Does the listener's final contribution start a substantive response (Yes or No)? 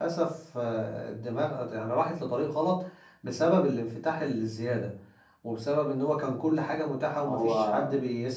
No